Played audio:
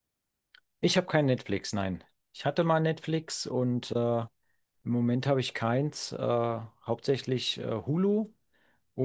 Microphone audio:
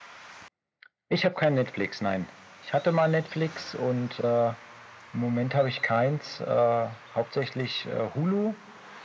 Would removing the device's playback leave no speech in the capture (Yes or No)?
Yes